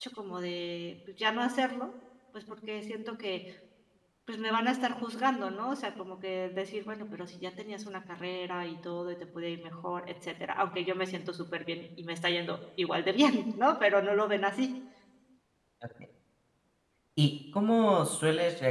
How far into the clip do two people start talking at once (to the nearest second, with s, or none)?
none